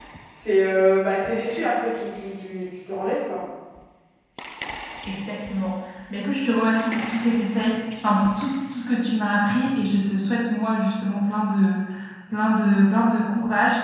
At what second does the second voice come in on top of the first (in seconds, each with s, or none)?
none